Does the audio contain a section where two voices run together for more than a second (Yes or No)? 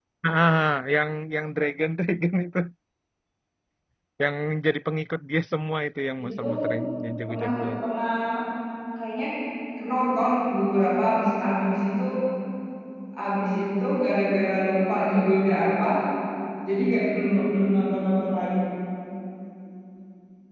No